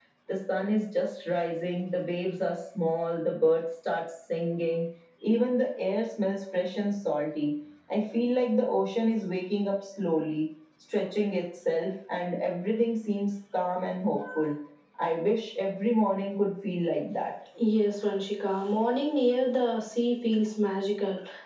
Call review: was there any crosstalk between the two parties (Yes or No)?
No